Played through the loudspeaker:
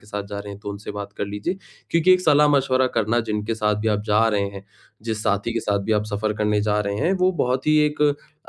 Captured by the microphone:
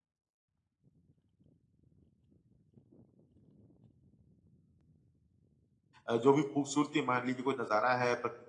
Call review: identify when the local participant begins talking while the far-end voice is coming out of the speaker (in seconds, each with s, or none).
6.1 s